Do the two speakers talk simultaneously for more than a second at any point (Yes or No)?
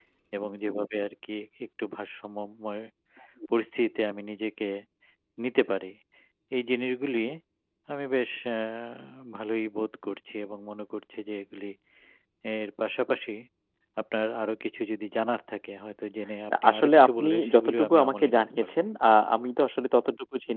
Yes